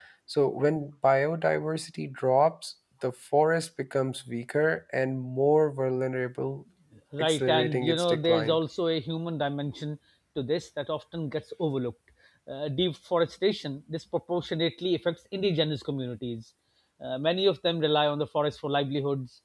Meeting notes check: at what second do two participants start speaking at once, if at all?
7.2 s

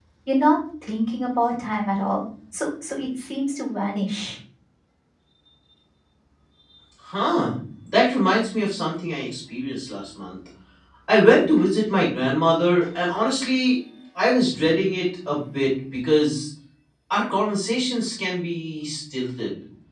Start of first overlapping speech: none

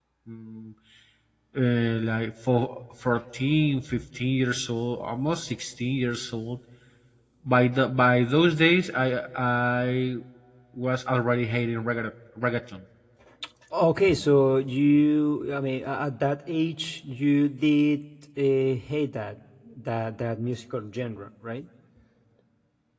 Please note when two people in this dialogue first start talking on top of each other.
none

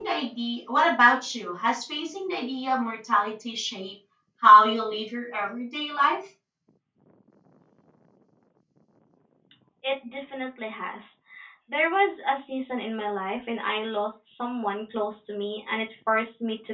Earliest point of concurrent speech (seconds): none

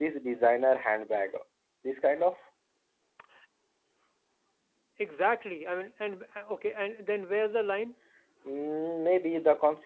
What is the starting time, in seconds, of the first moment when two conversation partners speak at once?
none

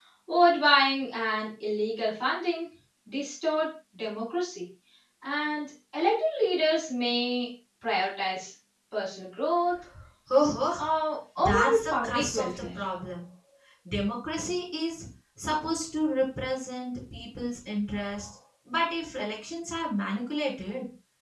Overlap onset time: 11.4 s

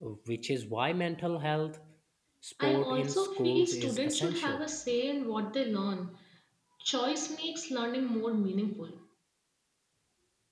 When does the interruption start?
2.6 s

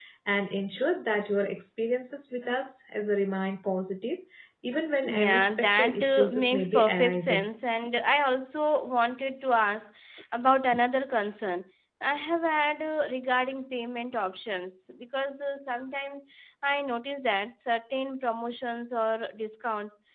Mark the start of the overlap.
5.1 s

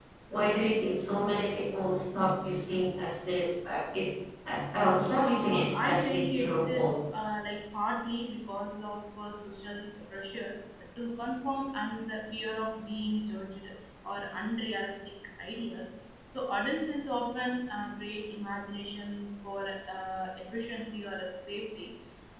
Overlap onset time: 5.2 s

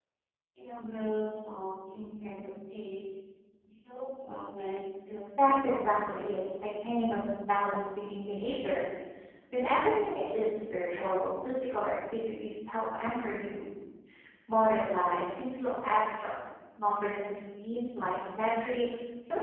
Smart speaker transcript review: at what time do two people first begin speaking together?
5.4 s

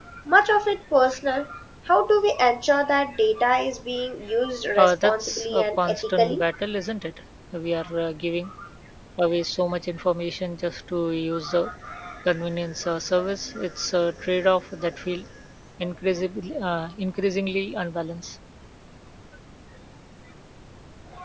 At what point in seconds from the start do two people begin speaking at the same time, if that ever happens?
4.8 s

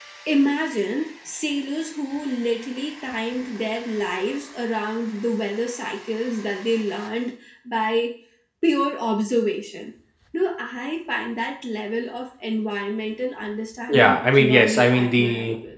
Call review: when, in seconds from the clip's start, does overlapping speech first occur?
13.9 s

